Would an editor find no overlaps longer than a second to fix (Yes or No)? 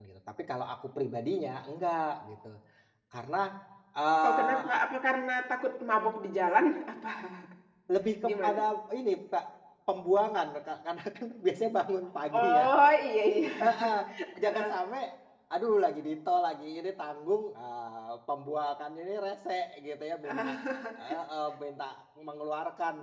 Yes